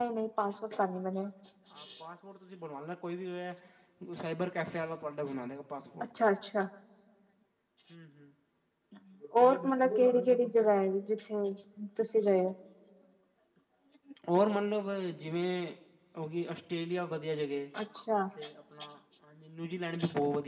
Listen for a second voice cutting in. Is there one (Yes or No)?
No